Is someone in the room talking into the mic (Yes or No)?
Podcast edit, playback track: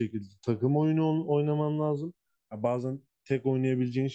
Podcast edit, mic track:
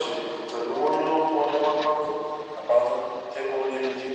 No